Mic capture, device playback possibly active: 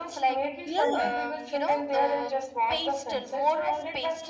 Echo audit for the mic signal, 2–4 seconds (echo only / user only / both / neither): echo only